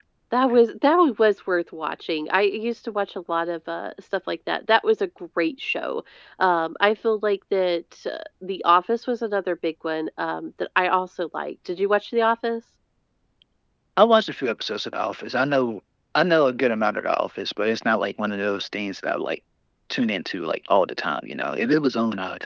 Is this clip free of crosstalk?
Yes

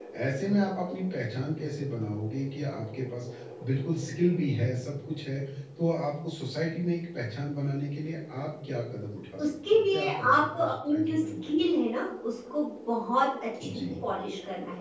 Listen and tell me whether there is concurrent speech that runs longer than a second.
Yes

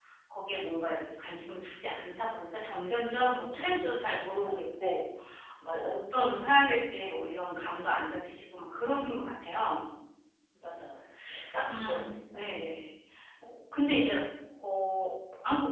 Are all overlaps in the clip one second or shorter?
No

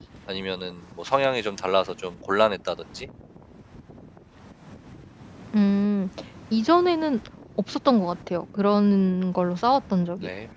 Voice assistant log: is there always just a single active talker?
Yes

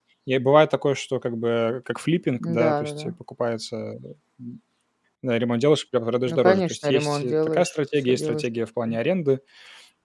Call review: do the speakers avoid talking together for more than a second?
No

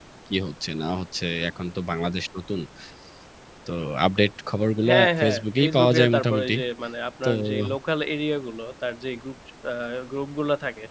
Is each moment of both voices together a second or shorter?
No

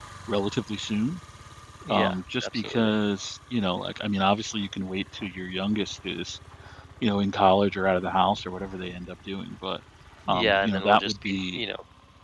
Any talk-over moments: Yes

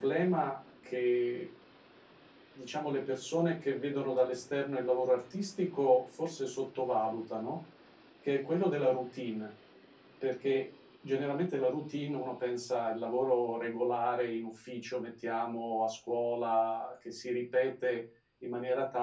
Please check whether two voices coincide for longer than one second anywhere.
No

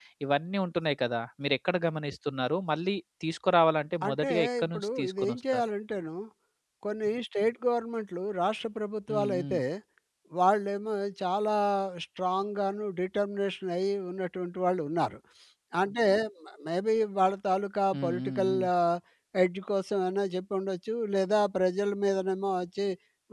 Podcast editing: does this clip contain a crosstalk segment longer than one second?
Yes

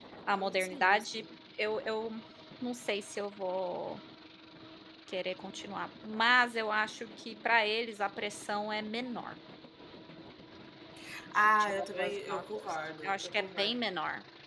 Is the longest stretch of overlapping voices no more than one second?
No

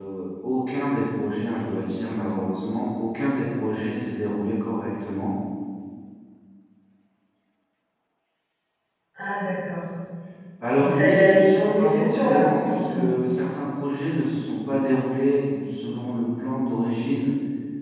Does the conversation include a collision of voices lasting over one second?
Yes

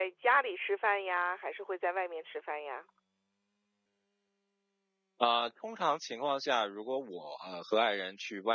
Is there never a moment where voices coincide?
Yes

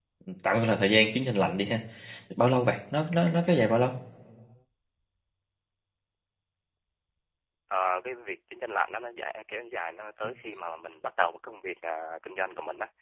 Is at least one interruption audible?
No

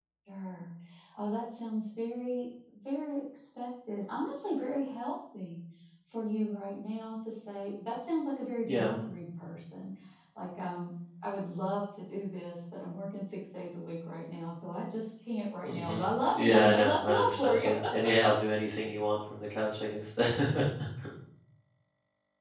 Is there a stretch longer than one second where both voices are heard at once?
Yes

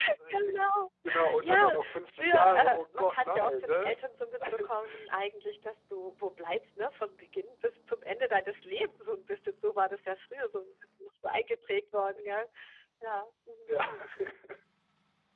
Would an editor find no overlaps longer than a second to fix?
No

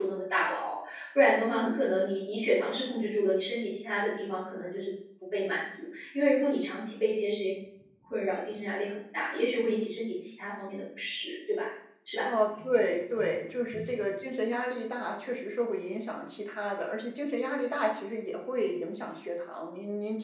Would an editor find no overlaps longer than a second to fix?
Yes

